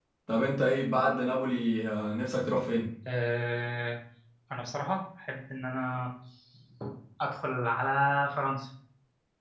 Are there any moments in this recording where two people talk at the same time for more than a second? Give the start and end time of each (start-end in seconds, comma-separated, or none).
none